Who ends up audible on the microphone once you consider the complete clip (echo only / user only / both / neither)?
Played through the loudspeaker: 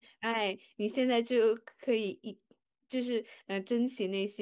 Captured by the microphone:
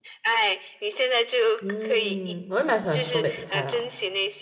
both